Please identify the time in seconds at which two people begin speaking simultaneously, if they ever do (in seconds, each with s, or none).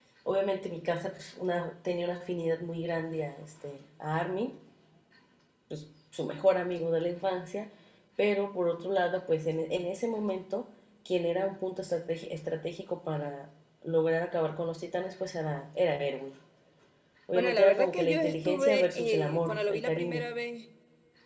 17.3 s